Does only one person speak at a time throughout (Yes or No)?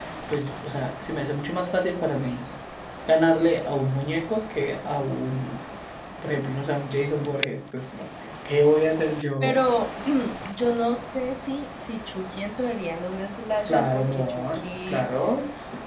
No